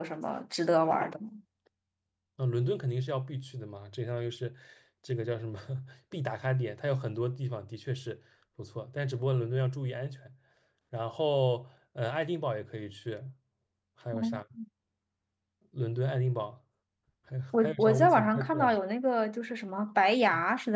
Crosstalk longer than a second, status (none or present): present